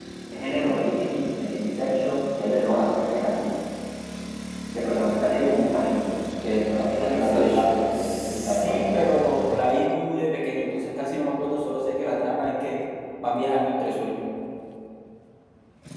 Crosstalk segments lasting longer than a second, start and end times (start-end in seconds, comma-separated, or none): 7.1-9.2